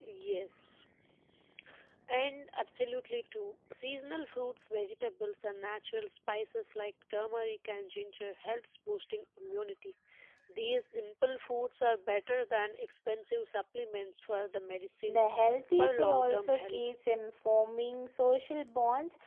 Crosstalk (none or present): present